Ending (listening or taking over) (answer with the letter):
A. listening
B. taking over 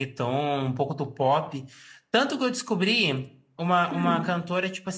A